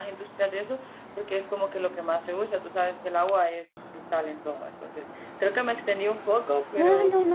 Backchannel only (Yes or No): No